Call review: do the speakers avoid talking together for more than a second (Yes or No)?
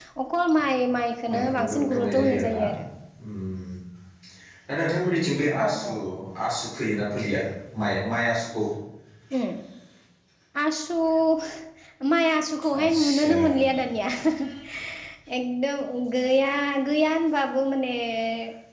No